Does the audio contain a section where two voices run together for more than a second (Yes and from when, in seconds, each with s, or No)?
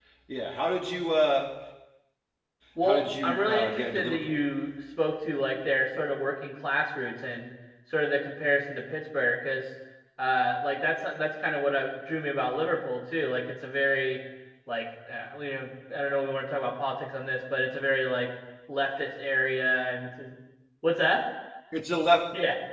Yes, from 2.8 s